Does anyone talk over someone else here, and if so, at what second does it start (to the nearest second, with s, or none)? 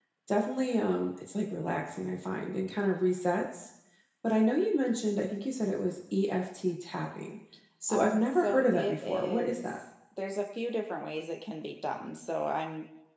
8 s